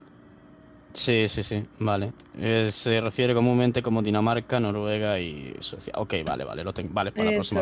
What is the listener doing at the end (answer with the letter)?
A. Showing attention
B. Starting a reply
B